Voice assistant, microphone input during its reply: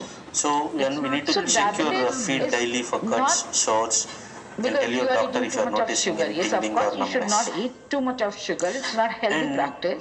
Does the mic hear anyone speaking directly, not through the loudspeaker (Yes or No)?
Yes